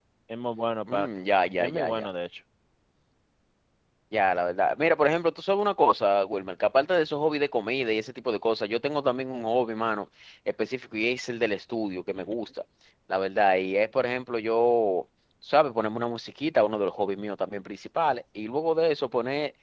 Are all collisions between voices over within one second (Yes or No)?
Yes